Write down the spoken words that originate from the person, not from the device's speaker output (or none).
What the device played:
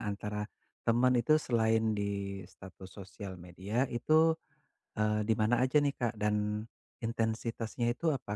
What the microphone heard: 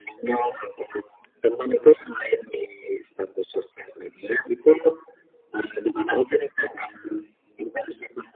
none